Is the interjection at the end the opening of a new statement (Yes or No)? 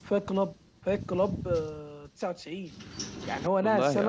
No